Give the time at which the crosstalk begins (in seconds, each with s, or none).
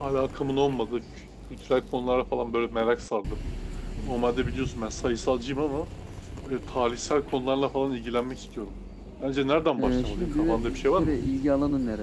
9.8 s